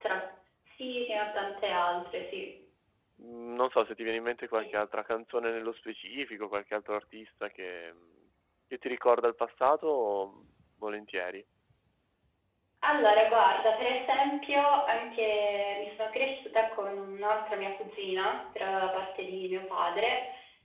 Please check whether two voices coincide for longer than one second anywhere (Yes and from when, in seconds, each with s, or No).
No